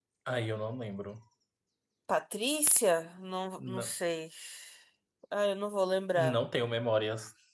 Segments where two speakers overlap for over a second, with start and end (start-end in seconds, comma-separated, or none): none